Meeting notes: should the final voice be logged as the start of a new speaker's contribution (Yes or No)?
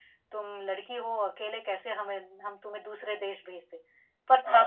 Yes